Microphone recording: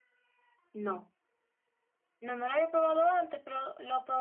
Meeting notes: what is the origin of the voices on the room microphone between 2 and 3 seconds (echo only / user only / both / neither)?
echo only